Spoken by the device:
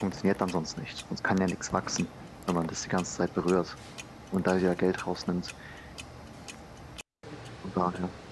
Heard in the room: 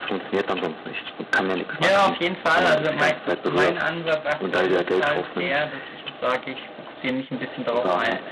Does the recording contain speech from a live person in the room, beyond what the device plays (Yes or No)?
Yes